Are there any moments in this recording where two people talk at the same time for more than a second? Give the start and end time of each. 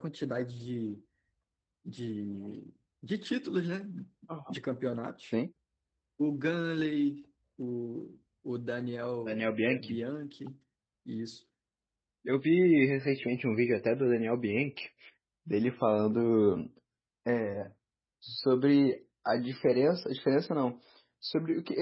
none

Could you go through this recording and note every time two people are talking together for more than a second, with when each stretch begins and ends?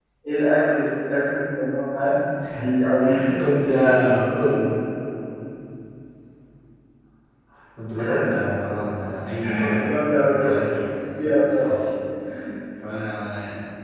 10.4-11.8

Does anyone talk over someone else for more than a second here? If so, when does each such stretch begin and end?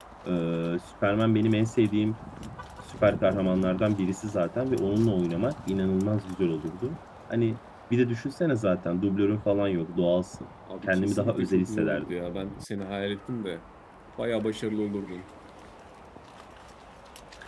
10.9-12.1

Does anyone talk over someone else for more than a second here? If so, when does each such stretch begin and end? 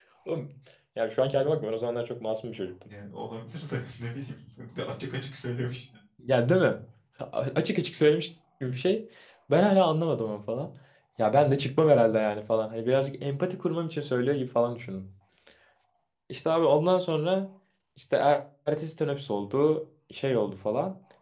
none

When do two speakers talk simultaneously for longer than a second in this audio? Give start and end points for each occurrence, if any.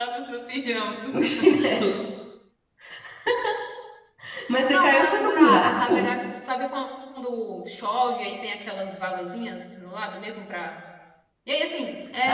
4.7-6.0

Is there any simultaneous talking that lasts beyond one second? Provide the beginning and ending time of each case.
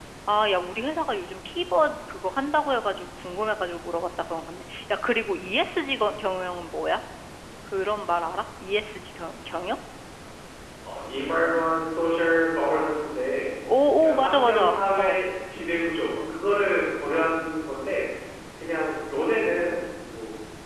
14.0-15.2

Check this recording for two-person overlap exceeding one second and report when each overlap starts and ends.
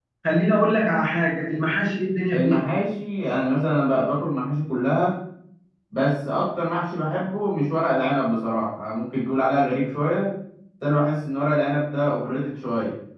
none

